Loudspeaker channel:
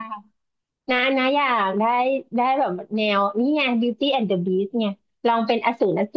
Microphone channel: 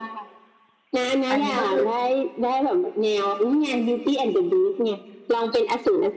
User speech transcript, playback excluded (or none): อันนี้ก็คือ